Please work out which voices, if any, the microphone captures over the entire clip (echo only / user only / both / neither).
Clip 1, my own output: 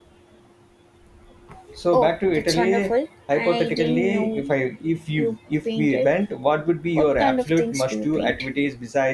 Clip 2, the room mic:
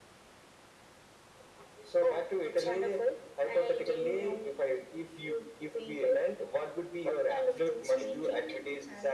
both